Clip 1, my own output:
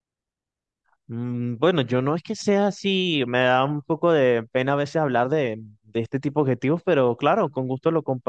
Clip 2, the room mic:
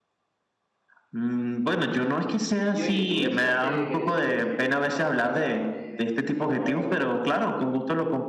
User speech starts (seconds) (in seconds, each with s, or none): 2.7 s